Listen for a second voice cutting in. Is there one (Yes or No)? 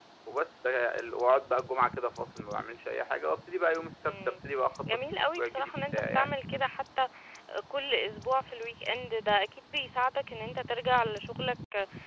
Yes